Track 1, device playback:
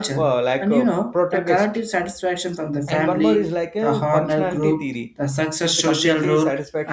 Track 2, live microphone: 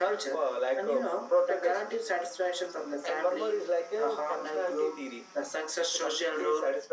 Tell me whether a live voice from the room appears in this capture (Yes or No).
No